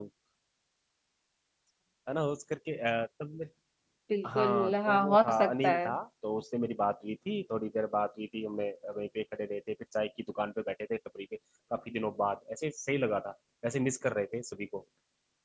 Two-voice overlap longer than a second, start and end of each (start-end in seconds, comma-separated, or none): 4.3-5.9